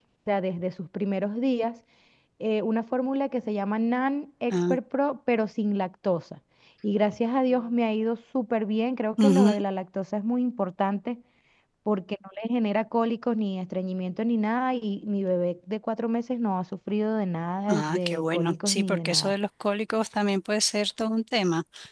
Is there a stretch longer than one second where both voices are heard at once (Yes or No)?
Yes